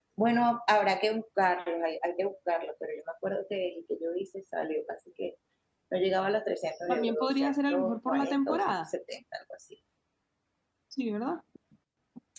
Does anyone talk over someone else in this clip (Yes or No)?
Yes